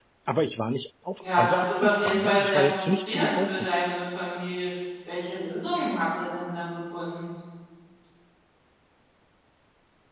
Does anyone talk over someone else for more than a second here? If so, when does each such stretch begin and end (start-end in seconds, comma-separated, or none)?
1.2-3.7